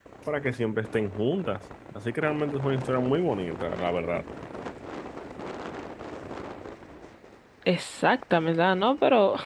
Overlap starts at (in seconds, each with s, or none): none